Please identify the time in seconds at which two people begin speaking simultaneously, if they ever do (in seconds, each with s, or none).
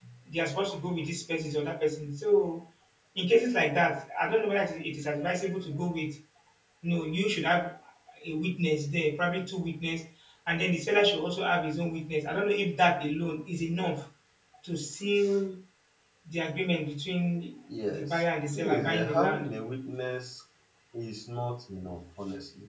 17.7 s